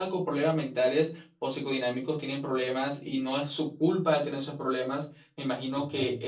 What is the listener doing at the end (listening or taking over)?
listening